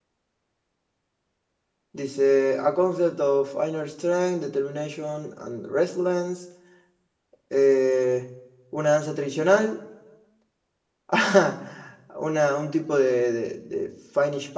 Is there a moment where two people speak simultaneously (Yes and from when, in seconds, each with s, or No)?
No